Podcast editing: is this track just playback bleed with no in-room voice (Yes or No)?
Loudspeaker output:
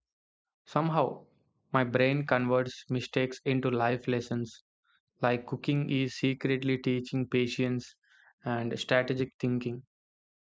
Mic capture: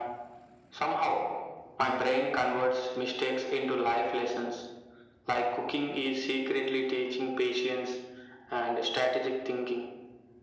Yes